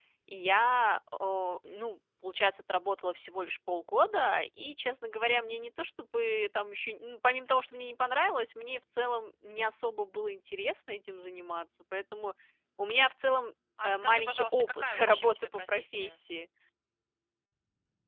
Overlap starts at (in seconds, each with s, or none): 13.8 s